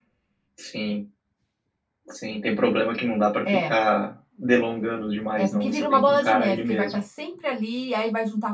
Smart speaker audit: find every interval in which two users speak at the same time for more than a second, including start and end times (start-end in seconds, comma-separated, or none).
5.3-7.0